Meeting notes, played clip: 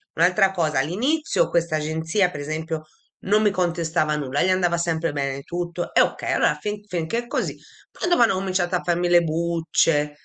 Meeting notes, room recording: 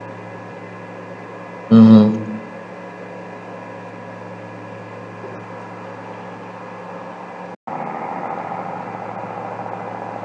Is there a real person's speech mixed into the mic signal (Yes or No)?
Yes